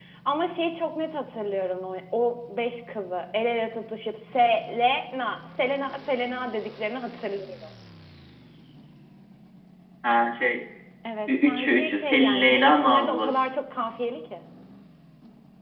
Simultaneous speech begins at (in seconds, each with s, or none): 11.3 s